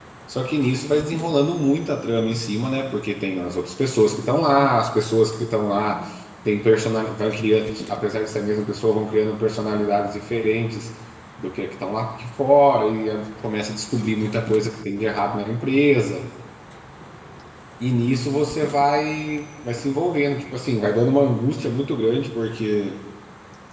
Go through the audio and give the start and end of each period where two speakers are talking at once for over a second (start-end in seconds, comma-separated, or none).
none